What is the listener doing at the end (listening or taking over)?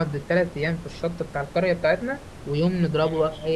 listening